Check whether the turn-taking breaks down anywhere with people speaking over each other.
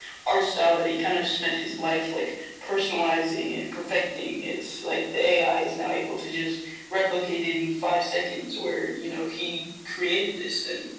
No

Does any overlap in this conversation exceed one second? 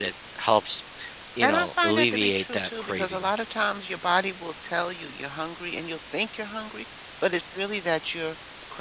Yes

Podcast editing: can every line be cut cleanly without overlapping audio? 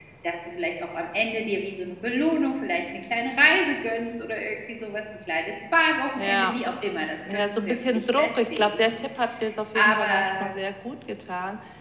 No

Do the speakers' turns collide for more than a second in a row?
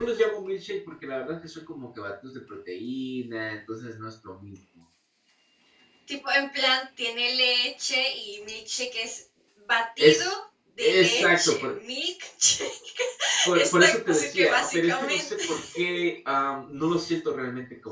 Yes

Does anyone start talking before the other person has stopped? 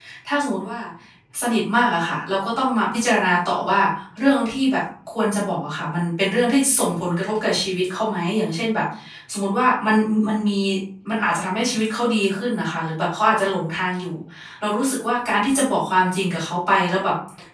No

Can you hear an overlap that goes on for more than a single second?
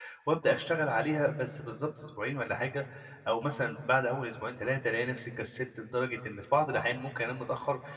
No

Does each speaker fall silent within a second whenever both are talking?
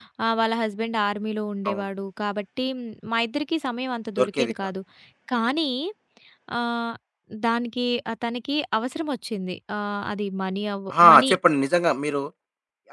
Yes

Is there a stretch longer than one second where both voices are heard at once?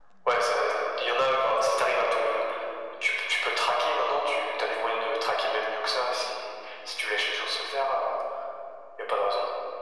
No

